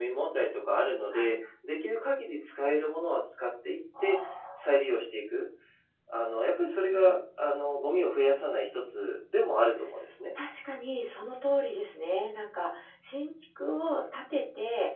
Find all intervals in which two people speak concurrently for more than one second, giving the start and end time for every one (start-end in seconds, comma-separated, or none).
none